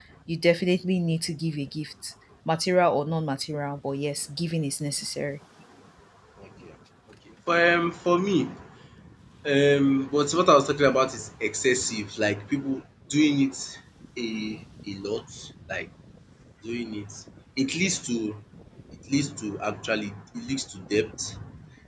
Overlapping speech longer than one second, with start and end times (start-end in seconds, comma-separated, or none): none